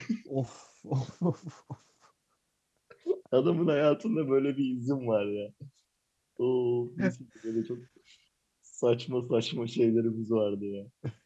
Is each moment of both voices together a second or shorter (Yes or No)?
Yes